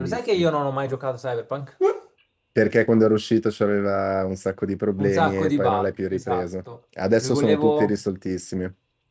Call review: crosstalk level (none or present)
present